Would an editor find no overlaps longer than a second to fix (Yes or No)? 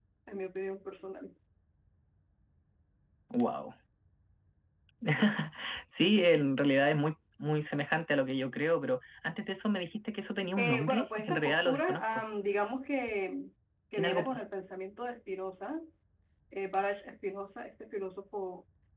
No